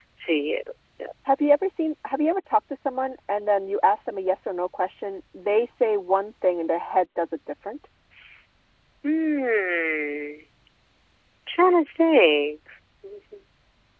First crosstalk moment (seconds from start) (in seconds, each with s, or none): none